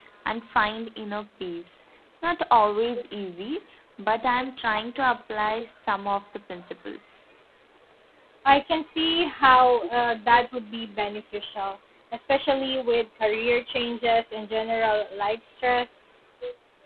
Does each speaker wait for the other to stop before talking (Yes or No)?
Yes